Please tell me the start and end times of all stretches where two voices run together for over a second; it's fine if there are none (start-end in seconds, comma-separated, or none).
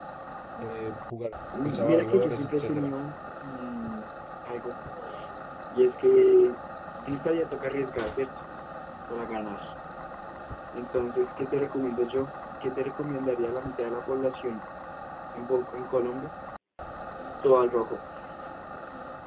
1.6-2.9